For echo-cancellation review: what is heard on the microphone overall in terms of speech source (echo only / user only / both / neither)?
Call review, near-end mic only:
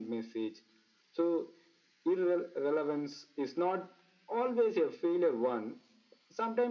echo only